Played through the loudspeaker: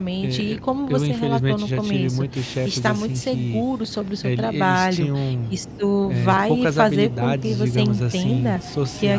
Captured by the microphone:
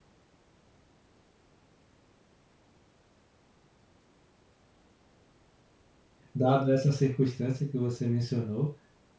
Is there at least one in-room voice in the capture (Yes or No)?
Yes